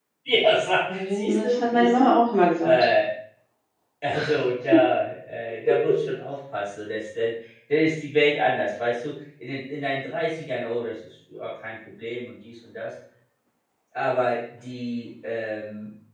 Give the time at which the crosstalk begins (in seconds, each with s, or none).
0.9 s